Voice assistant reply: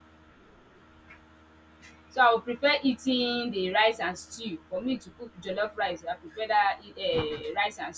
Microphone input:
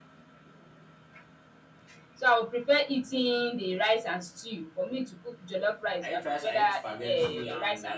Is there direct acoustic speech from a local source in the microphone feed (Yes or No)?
Yes